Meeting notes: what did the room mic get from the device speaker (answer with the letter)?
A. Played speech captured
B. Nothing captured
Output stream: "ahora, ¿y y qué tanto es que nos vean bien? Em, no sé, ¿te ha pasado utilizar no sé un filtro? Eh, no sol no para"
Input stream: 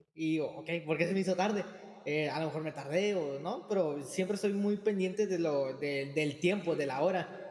B